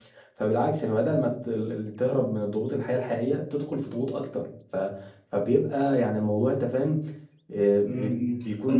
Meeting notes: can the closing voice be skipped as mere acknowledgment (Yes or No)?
No